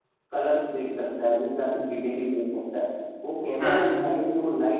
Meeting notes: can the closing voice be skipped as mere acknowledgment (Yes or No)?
Yes